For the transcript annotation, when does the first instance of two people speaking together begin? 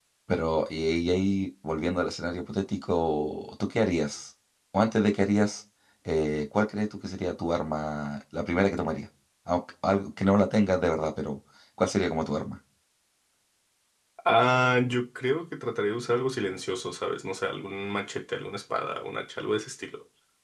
none

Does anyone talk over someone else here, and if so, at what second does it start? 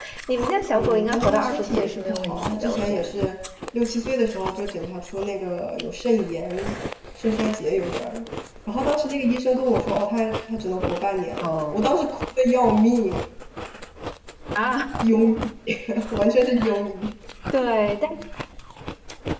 1 s

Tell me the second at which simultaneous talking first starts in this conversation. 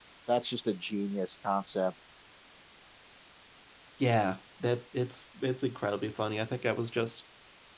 none

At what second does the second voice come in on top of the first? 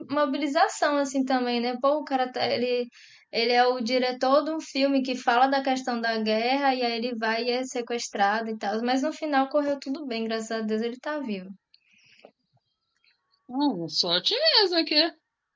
none

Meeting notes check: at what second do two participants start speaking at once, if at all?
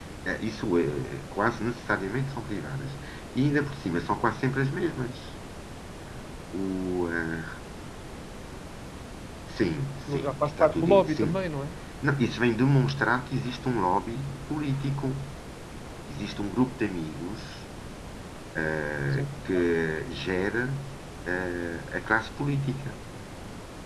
10 s

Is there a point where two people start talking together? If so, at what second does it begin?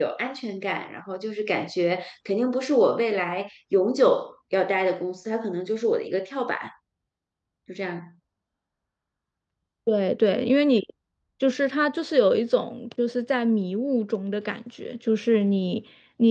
none

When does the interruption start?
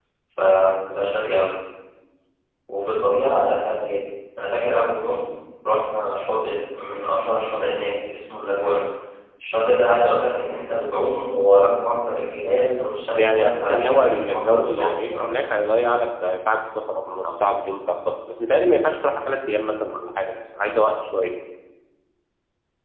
13 s

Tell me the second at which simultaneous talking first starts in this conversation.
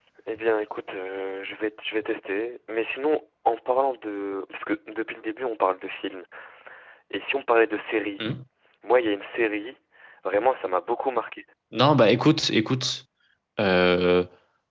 none

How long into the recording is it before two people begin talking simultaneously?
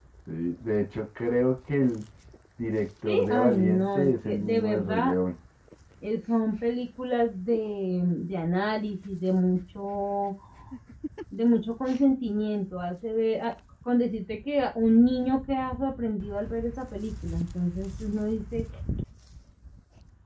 3 s

